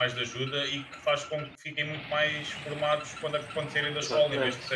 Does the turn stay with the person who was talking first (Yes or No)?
Yes